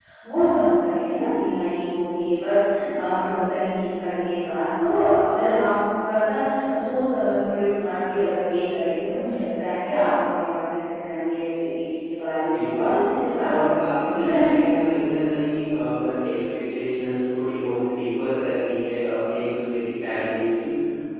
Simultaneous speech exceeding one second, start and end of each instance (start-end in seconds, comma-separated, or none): 13.5-15.0